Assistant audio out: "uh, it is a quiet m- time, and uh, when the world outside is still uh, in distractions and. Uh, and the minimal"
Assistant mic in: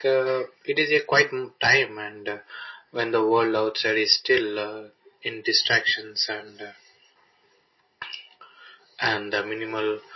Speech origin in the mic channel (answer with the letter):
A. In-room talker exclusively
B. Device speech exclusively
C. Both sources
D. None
B